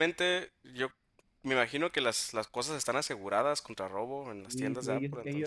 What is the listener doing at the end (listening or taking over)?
taking over